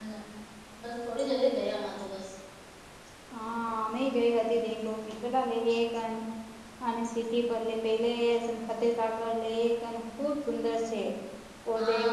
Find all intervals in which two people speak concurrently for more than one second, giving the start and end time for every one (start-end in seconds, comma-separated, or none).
none